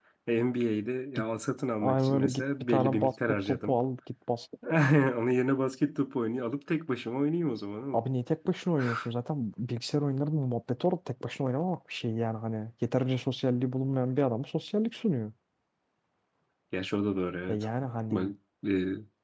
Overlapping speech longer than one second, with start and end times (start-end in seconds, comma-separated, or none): 1.8-3.8